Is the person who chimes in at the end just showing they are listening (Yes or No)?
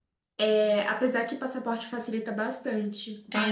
No